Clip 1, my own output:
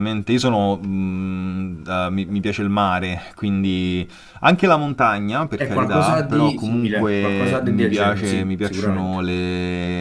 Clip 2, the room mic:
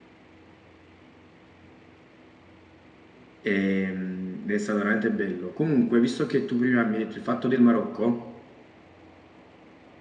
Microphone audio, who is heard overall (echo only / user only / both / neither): user only